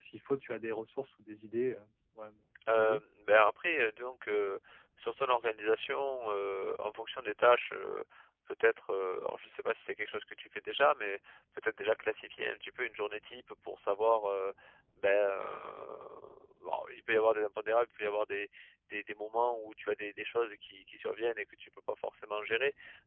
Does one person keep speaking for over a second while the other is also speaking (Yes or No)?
No